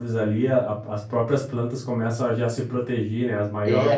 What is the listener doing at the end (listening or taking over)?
taking over